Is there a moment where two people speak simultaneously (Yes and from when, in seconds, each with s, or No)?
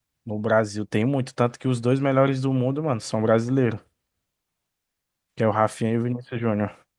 No